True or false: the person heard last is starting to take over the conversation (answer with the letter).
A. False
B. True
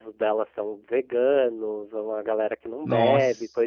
A